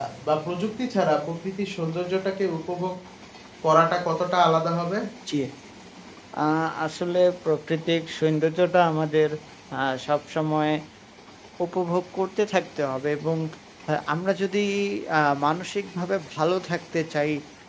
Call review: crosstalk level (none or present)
none